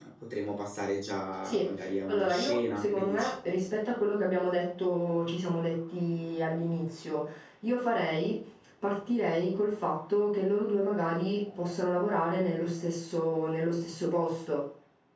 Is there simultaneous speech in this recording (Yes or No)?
Yes